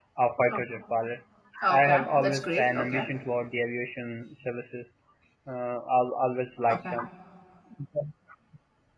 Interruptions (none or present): present